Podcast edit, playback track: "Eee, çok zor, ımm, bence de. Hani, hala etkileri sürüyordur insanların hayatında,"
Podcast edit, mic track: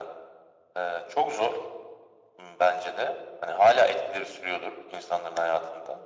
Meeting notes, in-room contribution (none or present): none